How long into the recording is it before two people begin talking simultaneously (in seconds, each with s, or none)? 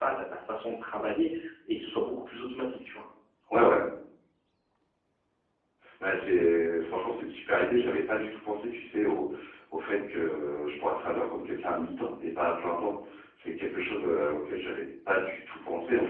none